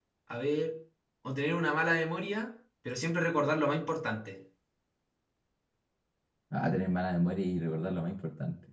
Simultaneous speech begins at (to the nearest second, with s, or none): none